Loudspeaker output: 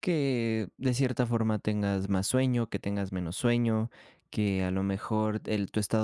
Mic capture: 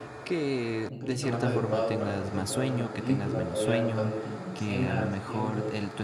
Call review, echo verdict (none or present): present